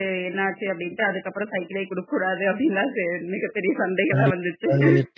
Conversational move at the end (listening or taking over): taking over